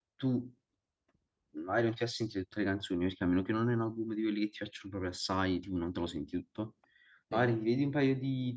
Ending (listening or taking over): listening